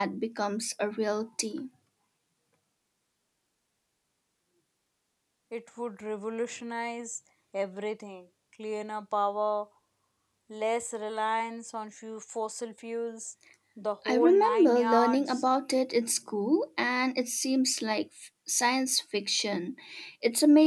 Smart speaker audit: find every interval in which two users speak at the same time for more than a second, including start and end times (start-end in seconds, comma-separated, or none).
14.1-15.4